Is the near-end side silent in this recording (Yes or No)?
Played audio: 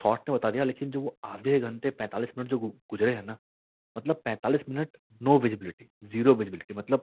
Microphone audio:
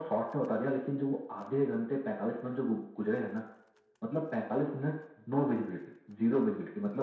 Yes